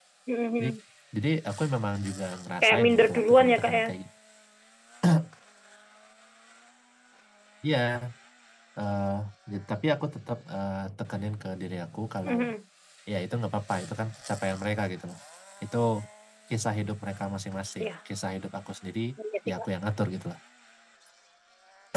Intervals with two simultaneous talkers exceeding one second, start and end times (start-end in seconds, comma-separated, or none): 2.6-3.8